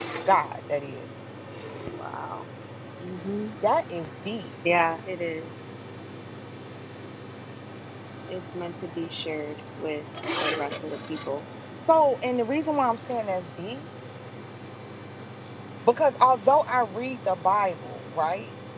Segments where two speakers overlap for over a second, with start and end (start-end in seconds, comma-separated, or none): none